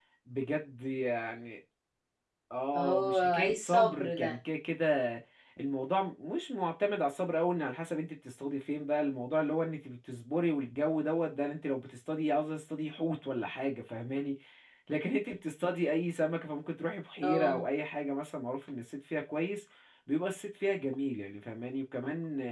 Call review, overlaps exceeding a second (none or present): present